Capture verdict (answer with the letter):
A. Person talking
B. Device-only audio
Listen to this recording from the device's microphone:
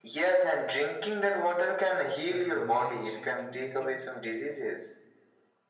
A